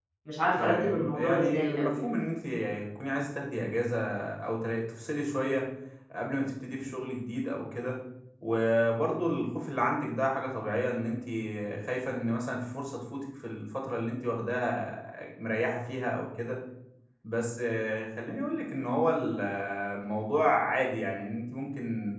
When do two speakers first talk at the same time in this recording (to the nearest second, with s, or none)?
1 s